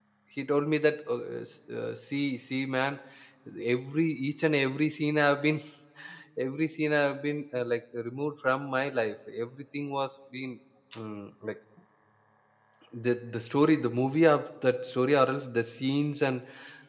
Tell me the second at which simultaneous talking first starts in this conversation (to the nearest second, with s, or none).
none